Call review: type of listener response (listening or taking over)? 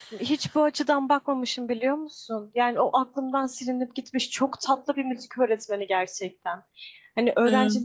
listening